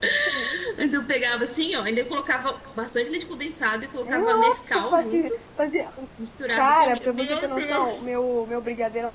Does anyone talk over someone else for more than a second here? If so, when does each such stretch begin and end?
4.0-5.3, 6.5-8.0

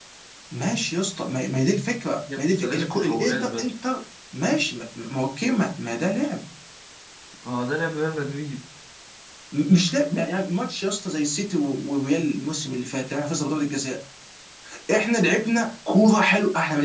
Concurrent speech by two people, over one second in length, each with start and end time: 2.4-3.7

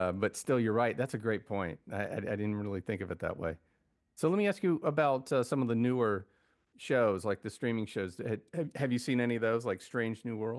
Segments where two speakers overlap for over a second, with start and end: none

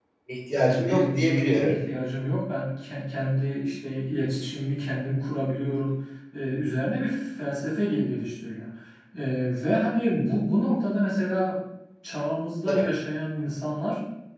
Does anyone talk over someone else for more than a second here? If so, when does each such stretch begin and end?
0.5-1.8

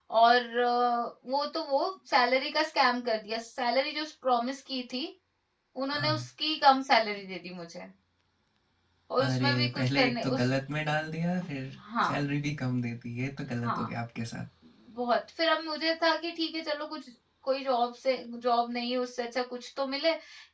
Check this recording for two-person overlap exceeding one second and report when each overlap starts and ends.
9.2-10.5

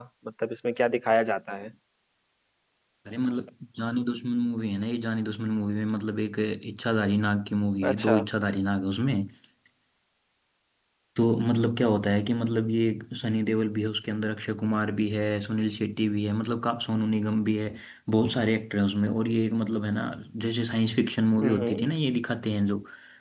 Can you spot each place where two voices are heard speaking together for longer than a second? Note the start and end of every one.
none

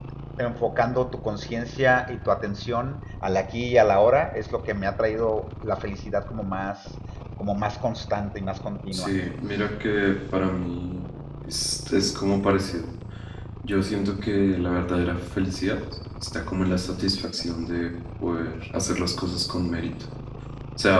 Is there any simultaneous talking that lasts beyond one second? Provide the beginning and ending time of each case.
none

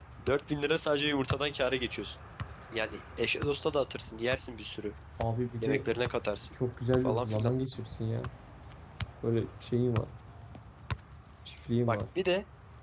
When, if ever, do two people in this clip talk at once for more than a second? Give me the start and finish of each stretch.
none

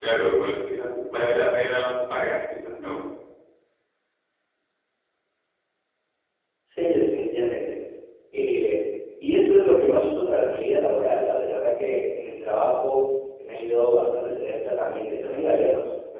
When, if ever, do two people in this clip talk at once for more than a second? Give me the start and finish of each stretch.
none

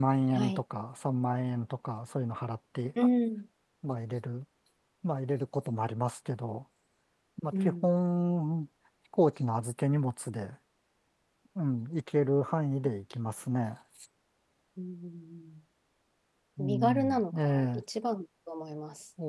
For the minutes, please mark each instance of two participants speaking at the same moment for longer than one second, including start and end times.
16.6-17.8

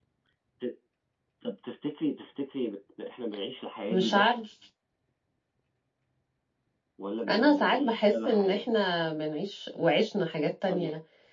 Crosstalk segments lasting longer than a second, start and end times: 7.3-8.6

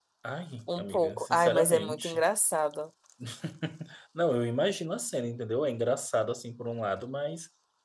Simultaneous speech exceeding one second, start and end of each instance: 0.8-2.2

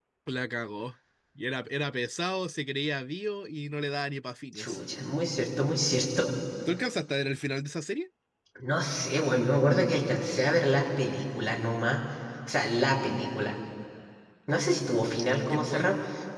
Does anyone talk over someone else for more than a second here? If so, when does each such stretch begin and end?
none

